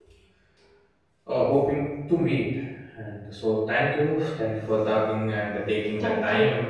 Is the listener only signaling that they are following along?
Yes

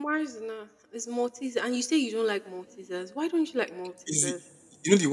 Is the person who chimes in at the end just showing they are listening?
No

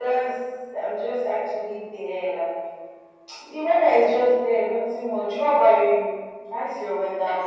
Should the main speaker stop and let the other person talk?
Yes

